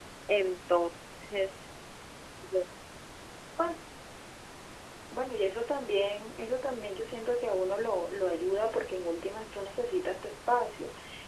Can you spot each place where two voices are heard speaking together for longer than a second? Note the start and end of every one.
none

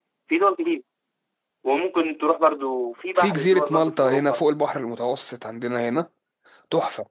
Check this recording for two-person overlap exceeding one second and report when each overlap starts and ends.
3.1-4.4

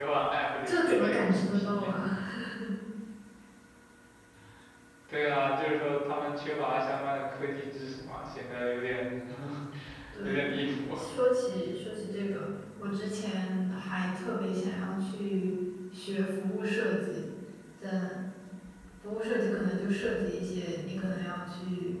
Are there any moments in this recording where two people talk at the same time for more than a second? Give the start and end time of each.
0.7-1.9

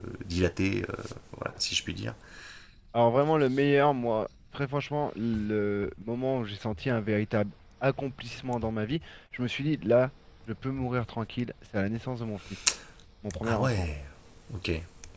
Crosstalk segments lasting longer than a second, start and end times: none

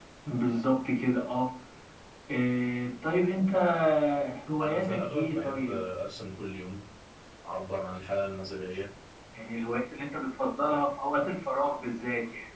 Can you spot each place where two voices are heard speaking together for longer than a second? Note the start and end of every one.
4.6-5.8

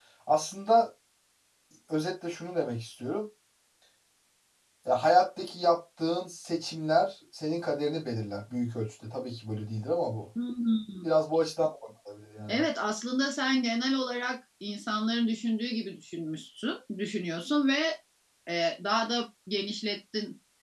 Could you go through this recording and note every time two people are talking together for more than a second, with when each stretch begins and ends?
none

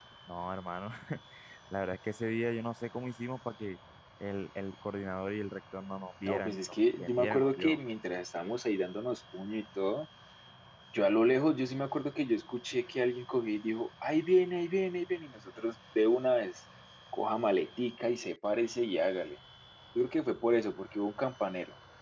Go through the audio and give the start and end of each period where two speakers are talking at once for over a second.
6.2-7.8

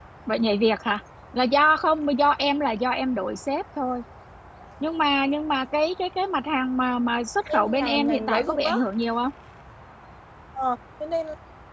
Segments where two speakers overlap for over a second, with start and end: 7.5-8.8

